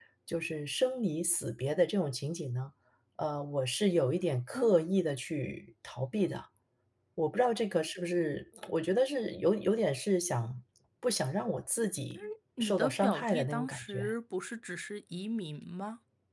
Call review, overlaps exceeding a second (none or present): present